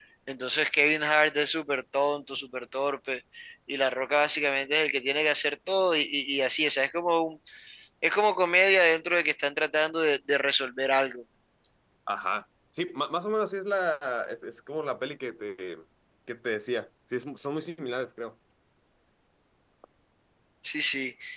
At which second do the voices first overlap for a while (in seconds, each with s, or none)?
none